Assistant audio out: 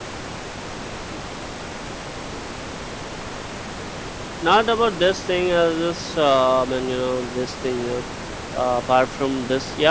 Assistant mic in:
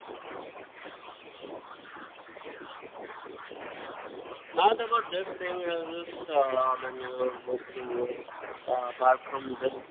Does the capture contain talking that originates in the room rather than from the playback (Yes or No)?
No